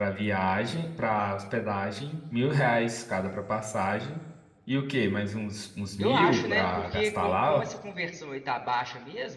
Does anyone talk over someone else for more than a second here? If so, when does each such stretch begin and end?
6.0-7.6

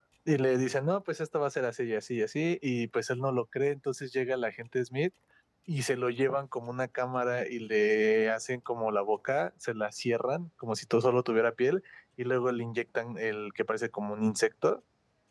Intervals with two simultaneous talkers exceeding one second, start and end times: none

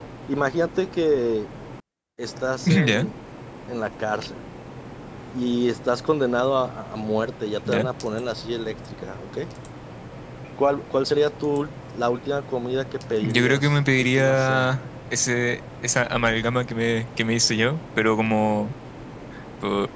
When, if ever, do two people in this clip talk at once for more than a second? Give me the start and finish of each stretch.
13.2-14.8

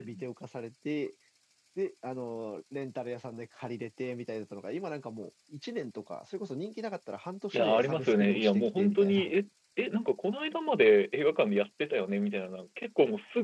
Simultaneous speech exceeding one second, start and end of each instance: 7.5-9.3

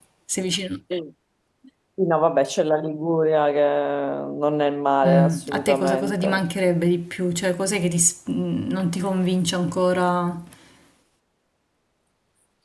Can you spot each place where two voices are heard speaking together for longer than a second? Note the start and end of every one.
5.0-6.4

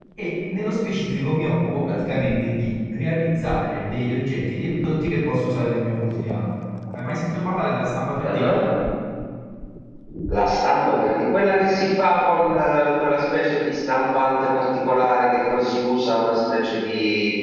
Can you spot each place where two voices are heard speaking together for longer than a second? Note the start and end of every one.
none

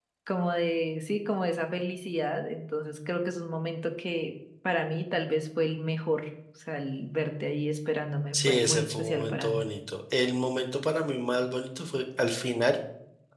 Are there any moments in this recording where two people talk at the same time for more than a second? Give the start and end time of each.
8.3-9.6

